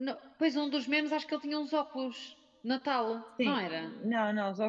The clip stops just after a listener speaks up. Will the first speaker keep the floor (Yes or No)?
No